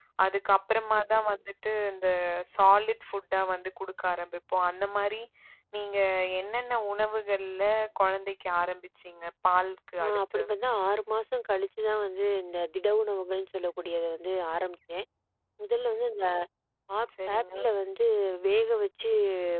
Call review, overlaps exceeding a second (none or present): none